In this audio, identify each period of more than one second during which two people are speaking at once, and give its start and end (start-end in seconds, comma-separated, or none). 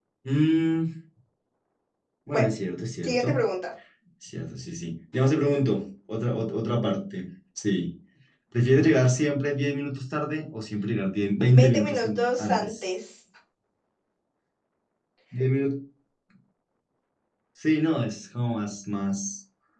11.6-12.9